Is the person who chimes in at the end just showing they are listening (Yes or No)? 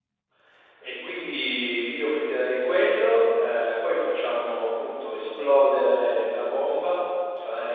No